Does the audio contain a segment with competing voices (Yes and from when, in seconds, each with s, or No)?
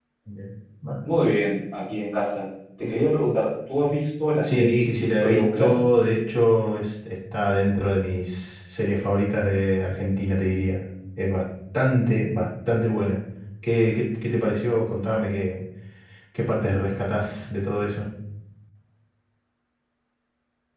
Yes, from 4.4 s